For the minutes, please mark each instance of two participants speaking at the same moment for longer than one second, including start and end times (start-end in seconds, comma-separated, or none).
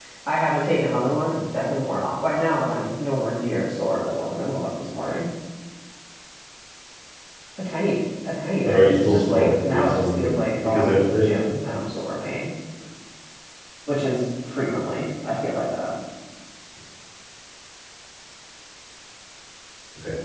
8.6-11.2